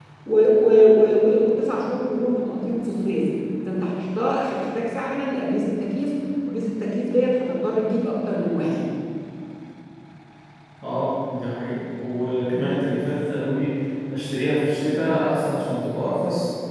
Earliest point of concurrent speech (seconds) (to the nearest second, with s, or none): none